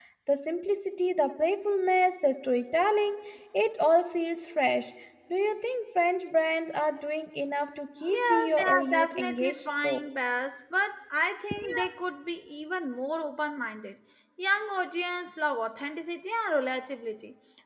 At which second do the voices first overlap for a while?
8.1 s

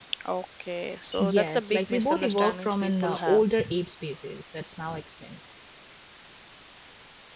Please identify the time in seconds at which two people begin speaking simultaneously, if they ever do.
1.2 s

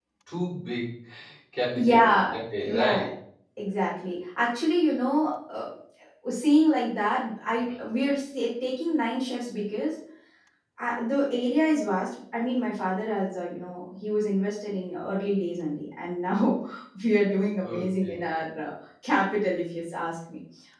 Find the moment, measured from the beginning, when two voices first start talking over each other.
1.8 s

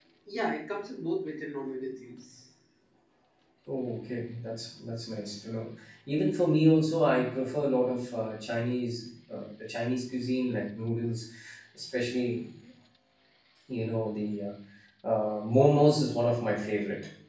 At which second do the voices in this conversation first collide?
none

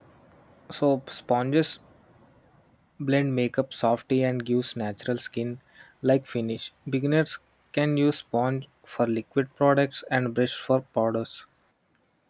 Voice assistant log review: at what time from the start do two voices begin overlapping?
none

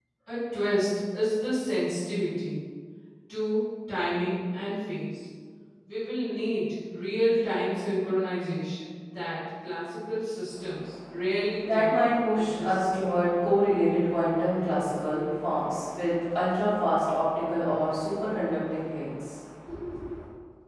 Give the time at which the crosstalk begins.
11.6 s

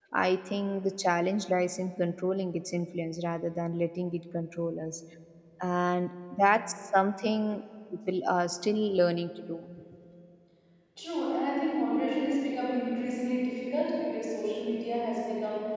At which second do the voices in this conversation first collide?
none

